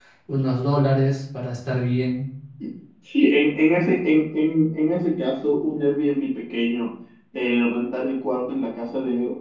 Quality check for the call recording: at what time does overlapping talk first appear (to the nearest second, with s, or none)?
none